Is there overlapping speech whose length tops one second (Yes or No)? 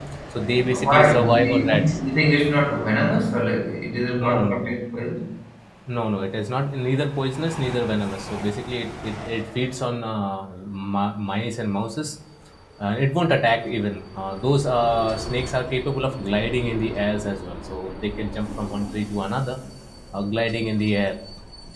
Yes